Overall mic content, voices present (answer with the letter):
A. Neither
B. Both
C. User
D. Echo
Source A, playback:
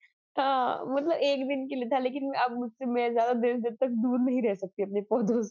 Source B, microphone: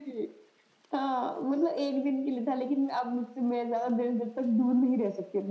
D